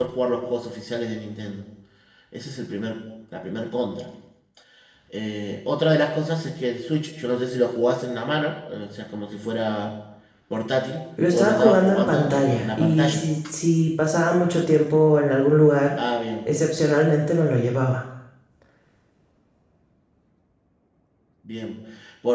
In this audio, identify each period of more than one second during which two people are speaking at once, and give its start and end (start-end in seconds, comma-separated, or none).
11.3-13.2